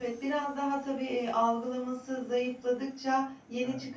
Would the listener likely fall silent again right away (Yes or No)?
Yes